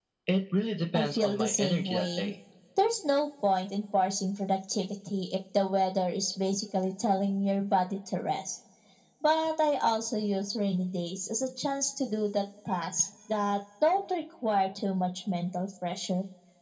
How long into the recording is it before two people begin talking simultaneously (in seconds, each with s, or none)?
0.9 s